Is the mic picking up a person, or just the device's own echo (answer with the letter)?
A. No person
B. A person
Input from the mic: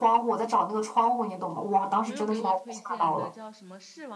B